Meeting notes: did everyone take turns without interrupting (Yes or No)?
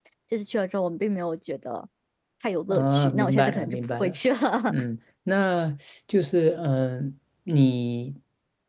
No